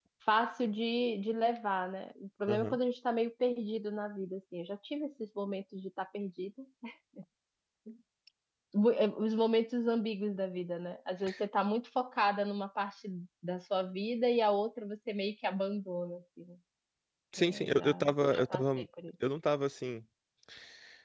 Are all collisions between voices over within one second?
No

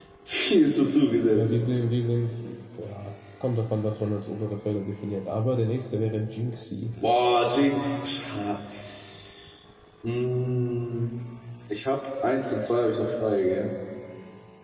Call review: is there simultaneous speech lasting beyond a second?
No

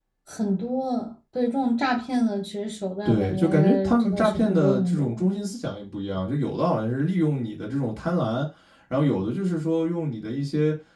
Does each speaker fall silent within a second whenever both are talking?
No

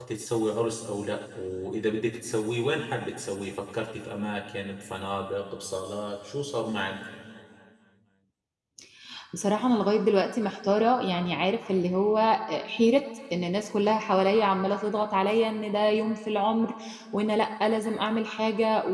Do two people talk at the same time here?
No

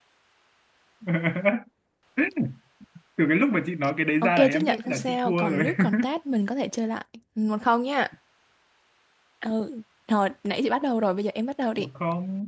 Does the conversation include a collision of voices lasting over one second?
Yes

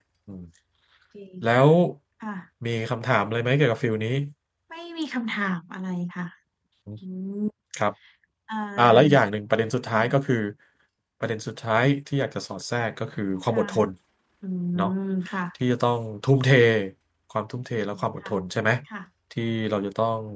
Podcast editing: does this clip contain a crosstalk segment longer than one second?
No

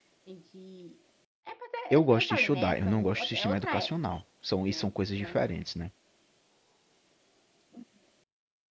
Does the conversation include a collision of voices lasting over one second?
Yes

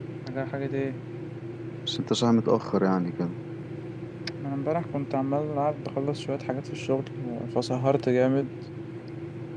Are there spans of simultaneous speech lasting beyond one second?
No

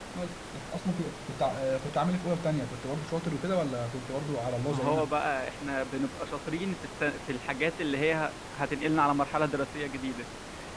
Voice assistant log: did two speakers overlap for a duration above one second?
No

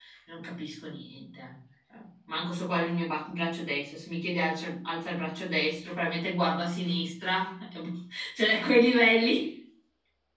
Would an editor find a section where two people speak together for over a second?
No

